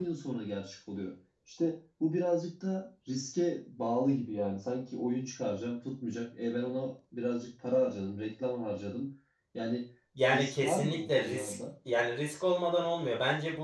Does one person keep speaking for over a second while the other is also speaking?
Yes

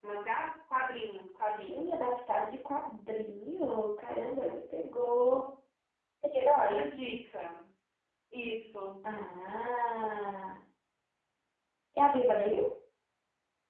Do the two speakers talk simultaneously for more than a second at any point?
No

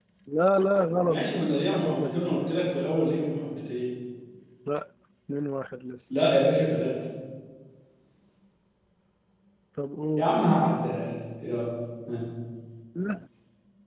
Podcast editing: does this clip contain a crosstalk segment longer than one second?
Yes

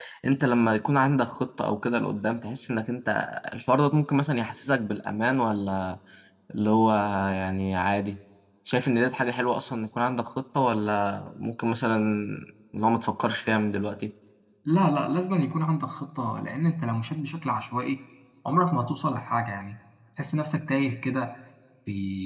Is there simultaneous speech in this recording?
No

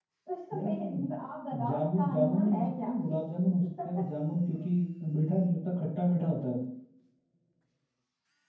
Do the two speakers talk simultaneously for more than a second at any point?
Yes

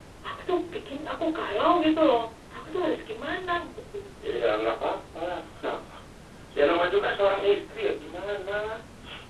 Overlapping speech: No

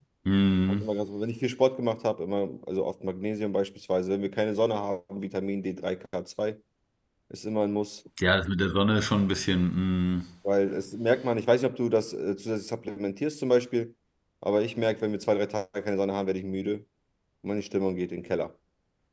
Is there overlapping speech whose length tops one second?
No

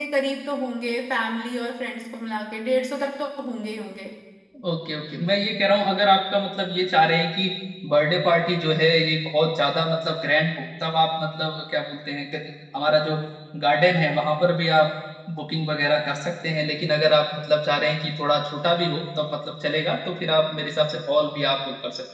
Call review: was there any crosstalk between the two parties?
No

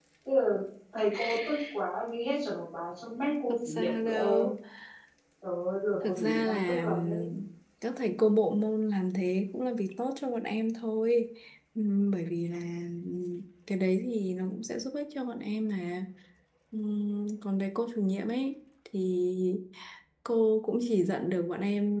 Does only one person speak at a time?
No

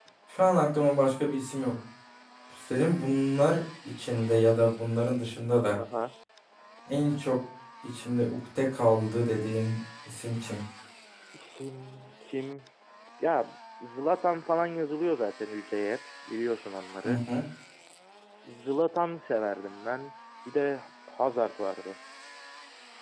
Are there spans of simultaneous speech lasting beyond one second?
No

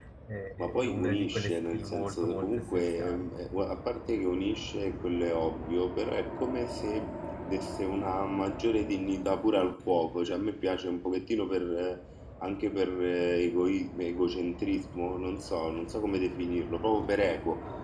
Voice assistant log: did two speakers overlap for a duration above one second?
Yes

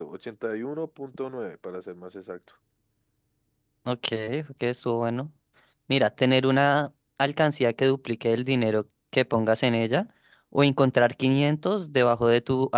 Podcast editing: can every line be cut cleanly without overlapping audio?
Yes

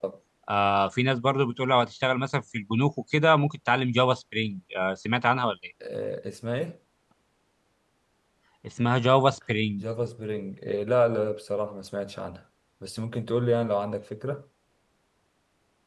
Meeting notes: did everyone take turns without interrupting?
Yes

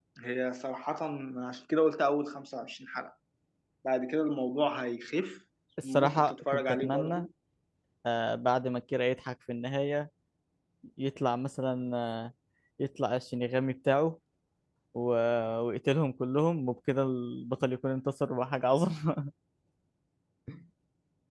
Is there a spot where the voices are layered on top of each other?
Yes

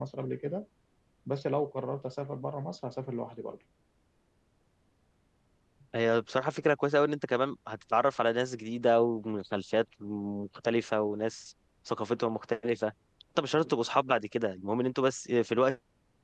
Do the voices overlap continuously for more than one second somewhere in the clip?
No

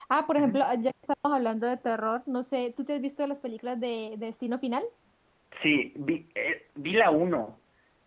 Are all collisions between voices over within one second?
Yes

